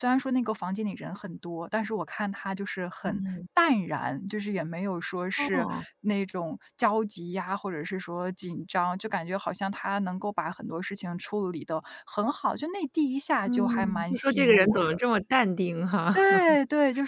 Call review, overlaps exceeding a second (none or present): present